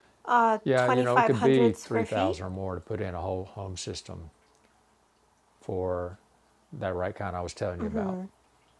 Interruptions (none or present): present